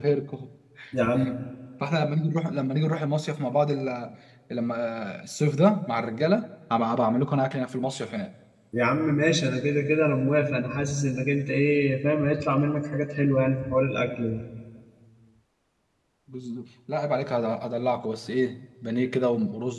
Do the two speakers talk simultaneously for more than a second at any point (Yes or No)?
No